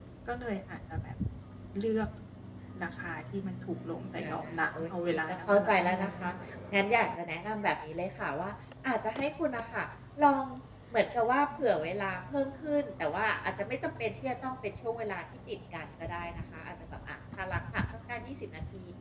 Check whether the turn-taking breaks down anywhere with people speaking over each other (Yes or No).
Yes